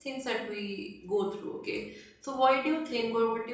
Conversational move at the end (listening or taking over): listening